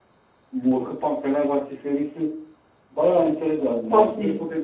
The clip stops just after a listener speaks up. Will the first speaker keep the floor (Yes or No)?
Yes